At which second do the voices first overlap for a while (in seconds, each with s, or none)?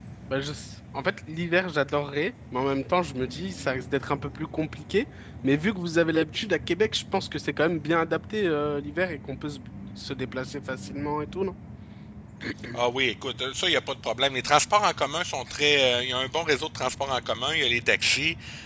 none